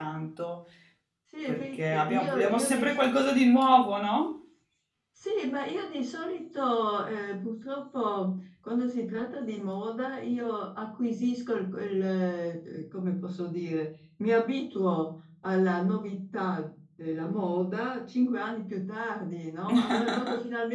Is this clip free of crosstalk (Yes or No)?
No